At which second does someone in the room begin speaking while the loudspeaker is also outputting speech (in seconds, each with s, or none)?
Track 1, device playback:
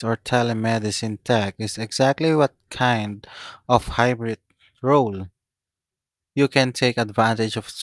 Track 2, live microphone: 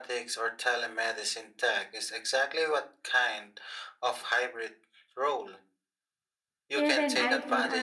6.7 s